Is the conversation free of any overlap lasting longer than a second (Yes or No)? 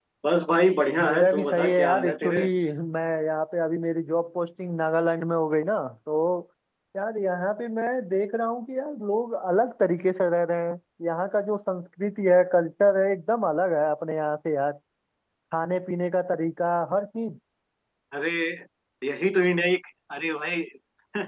No